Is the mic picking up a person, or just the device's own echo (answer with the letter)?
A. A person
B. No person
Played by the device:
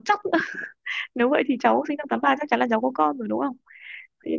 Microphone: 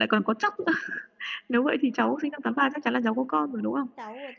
A